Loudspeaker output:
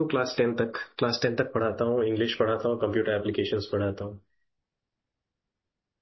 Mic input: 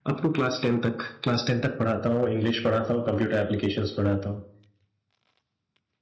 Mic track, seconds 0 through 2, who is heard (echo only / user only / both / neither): echo only